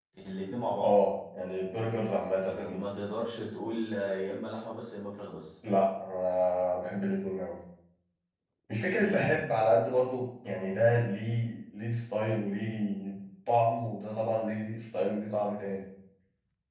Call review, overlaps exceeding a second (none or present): none